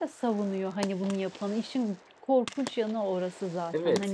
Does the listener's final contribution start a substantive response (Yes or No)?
Yes